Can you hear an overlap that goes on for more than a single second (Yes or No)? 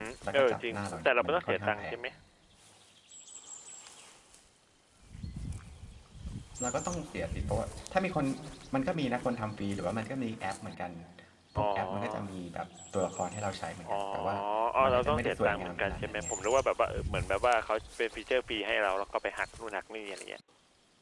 Yes